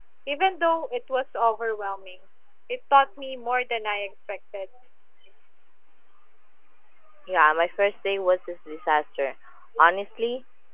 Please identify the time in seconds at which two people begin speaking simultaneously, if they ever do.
none

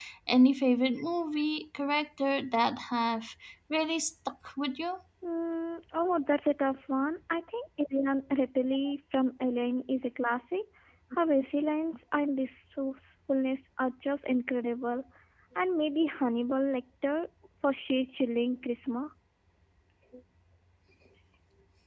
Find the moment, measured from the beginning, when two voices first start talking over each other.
none

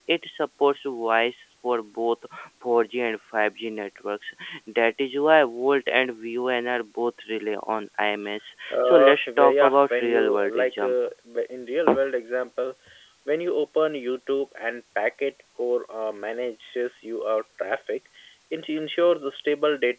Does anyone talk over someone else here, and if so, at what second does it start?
8.7 s

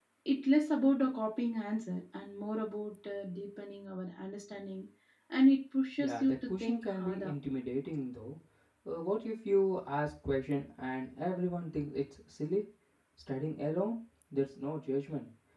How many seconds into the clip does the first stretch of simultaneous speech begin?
6.0 s

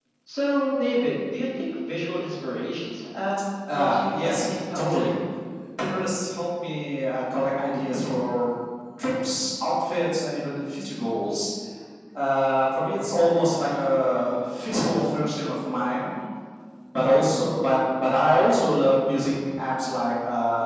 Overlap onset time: 3.7 s

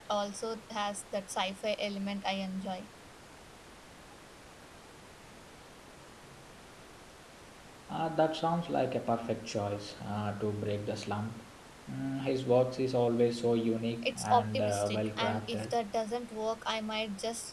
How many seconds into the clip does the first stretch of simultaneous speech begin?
14.0 s

